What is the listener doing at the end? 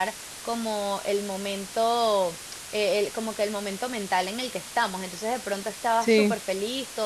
listening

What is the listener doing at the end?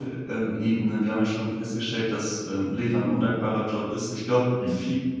listening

